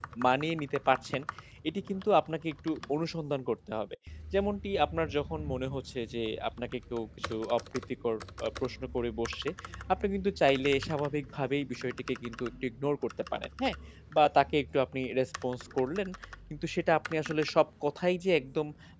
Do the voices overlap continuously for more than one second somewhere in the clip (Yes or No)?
No